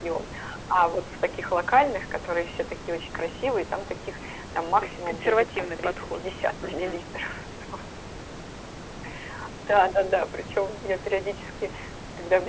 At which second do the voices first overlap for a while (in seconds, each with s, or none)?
4.8 s